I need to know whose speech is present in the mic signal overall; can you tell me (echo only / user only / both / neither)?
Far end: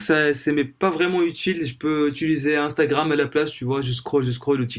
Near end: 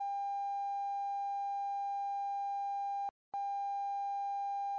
neither